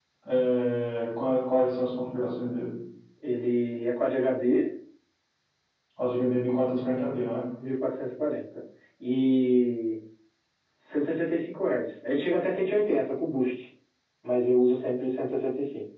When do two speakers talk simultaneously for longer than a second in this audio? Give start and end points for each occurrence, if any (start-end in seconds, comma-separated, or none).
none